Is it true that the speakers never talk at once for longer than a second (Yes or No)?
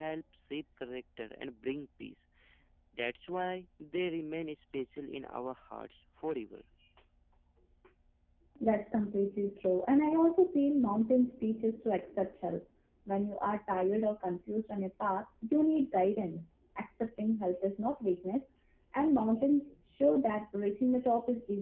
Yes